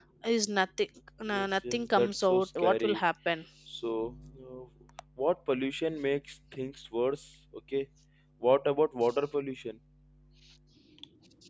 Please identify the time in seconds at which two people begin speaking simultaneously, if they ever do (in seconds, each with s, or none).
1.3 s